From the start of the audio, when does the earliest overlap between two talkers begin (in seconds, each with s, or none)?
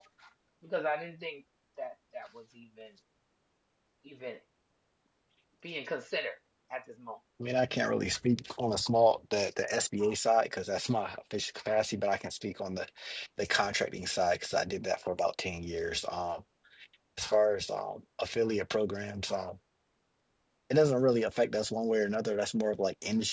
none